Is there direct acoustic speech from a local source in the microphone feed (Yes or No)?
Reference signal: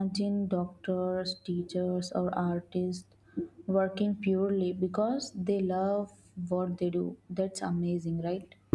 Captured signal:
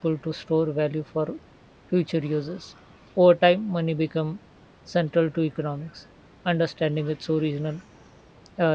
Yes